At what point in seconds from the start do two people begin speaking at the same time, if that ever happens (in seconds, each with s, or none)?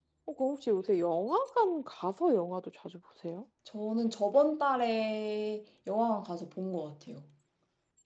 none